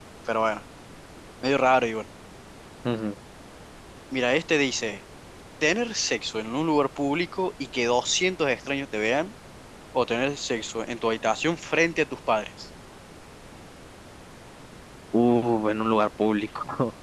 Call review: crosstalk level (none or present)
none